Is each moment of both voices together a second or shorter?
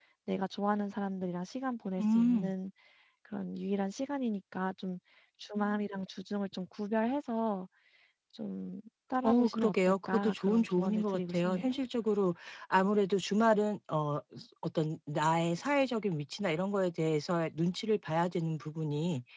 No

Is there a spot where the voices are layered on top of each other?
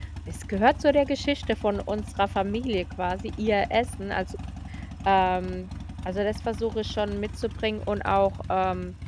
No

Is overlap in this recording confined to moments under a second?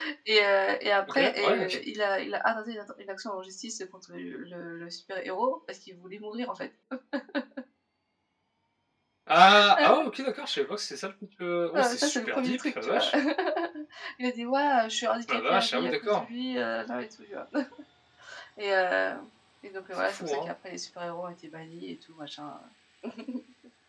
No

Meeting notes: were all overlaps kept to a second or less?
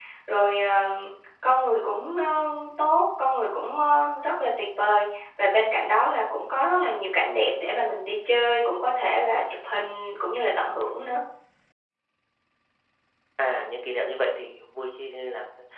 Yes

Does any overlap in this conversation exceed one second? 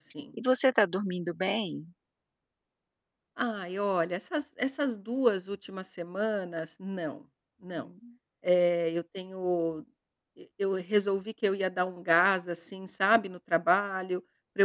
No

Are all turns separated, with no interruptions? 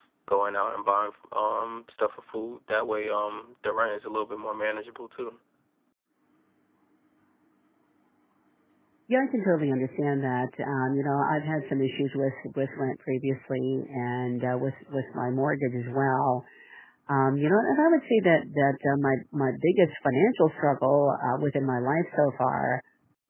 Yes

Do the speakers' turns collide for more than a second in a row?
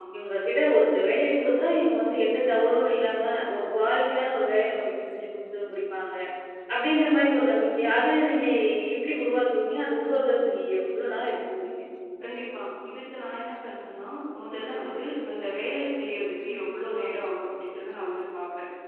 No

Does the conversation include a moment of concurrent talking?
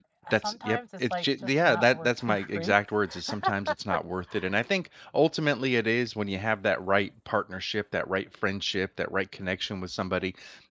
Yes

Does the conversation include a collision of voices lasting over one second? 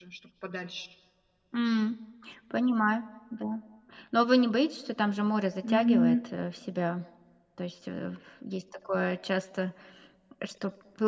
No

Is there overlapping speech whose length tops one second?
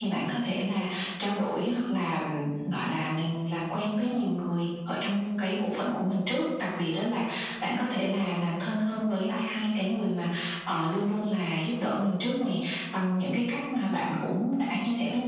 No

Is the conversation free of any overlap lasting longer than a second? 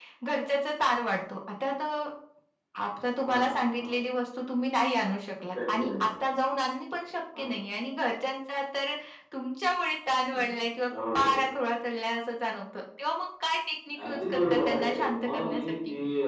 No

